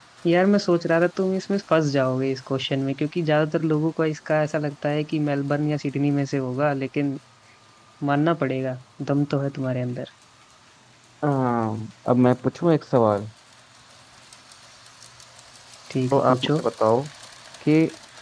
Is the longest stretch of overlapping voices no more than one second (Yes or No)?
Yes